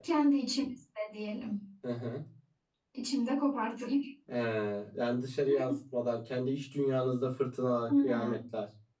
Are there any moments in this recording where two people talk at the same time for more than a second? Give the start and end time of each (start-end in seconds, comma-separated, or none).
none